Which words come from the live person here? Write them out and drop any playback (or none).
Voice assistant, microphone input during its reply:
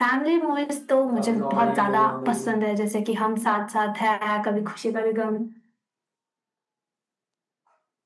काफी कॉमेडी है वहाँ पे भी